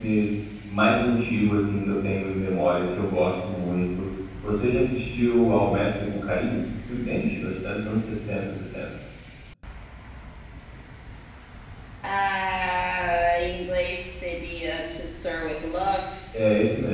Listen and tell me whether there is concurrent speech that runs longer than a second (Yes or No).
No